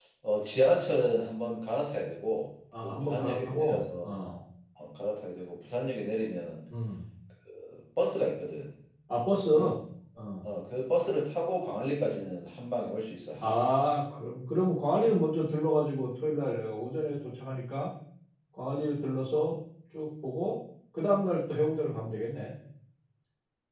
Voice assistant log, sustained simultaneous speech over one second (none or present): present